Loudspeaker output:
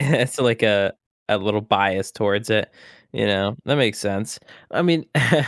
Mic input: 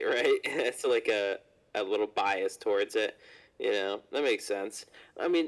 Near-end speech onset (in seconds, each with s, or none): none